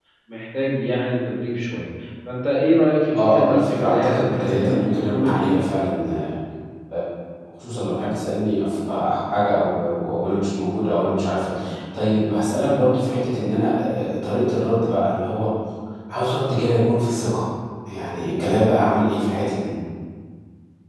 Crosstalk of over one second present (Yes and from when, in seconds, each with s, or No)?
Yes, from 3.1 s